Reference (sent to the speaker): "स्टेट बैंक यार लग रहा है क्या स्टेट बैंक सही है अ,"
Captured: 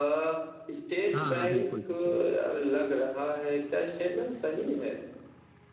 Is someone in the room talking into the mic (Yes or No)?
Yes